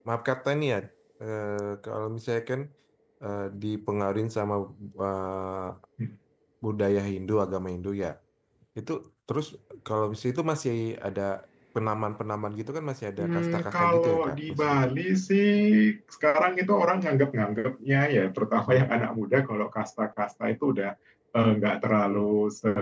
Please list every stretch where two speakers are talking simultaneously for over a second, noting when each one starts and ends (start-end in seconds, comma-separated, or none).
13.2-14.9